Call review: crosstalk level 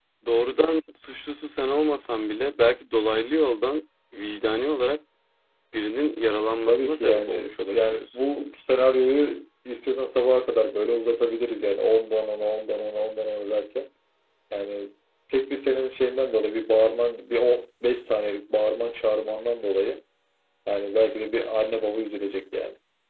present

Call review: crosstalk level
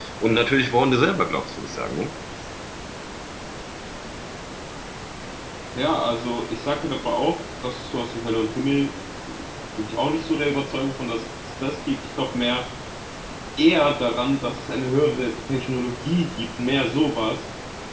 none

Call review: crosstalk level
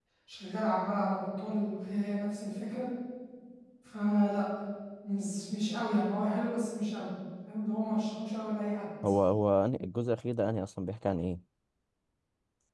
none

